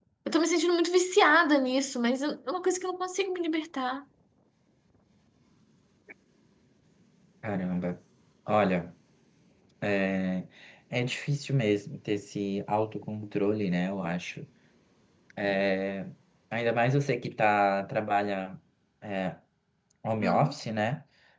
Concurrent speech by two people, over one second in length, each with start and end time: none

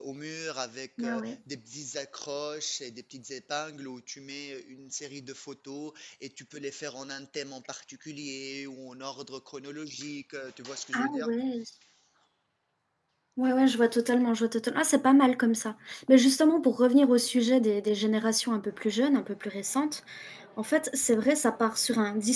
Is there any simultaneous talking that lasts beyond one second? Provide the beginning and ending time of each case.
none

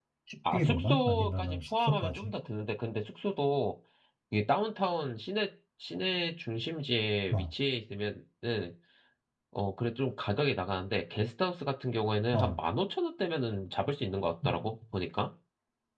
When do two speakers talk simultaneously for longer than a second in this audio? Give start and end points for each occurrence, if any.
0.5-2.3

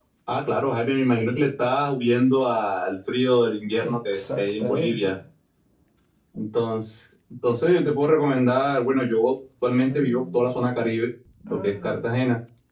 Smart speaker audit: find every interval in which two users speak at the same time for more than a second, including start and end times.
3.8-5.2

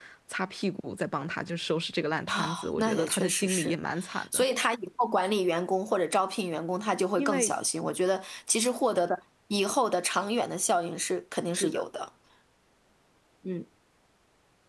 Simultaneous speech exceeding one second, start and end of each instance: 2.3-3.7

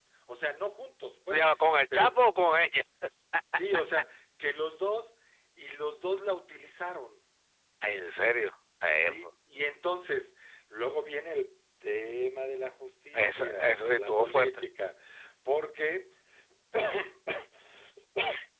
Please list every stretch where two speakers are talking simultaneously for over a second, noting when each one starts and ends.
13.1-14.6

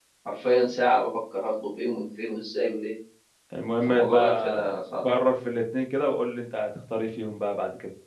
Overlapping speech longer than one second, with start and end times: 3.9-5.1

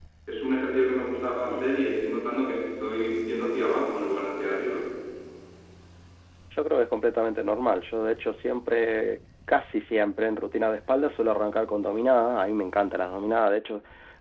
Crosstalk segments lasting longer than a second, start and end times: none

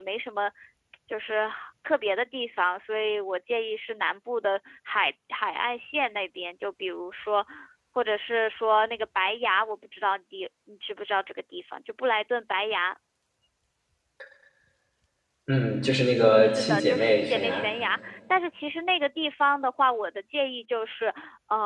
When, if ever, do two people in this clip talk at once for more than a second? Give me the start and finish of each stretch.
16.4-17.7

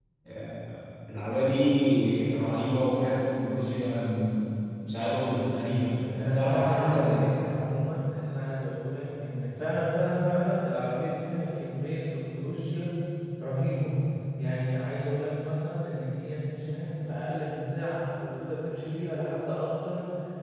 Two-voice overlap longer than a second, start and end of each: 6.2-7.5

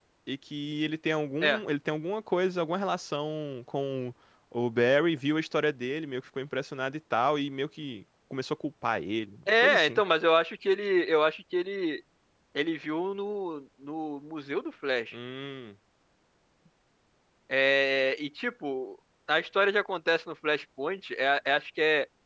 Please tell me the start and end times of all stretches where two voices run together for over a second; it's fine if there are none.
none

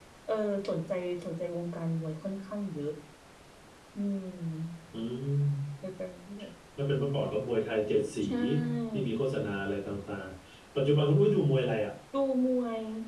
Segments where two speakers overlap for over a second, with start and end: none

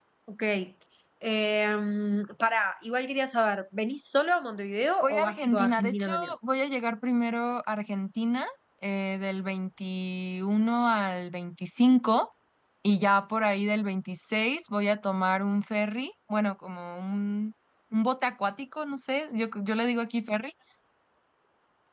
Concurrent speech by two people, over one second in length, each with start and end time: 5.0-6.3

